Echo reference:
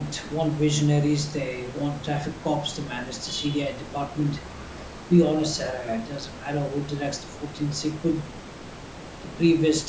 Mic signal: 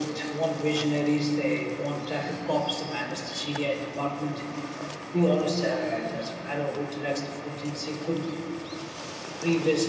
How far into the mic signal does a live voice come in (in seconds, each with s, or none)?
none